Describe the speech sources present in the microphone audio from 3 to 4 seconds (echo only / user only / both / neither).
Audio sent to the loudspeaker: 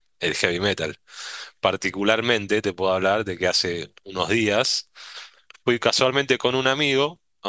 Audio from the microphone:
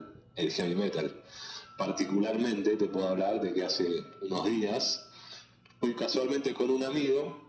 echo only